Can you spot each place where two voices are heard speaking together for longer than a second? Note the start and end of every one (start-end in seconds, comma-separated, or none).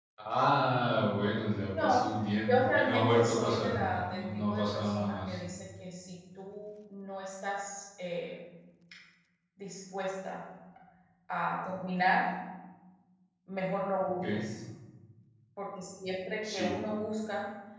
2.5-5.4